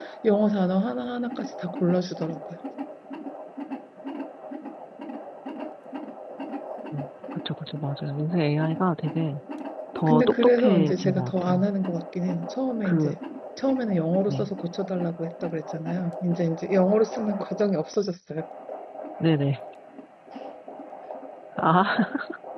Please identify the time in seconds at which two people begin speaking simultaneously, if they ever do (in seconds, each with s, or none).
10.1 s